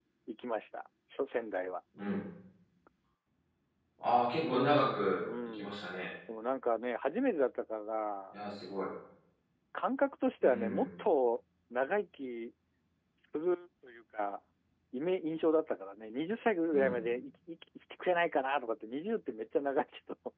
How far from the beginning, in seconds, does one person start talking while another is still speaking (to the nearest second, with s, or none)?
4 s